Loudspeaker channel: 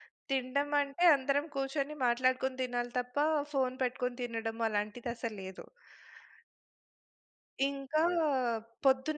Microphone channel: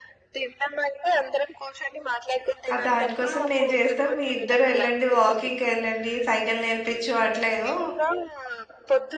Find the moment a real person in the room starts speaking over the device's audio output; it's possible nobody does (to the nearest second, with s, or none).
3 s